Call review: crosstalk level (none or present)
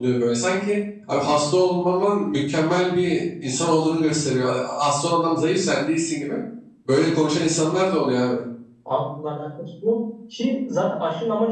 none